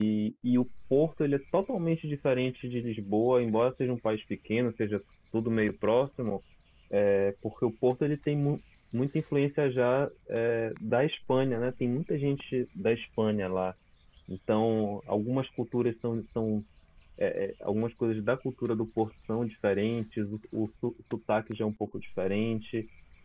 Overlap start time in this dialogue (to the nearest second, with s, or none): none